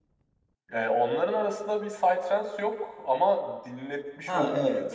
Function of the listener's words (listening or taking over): listening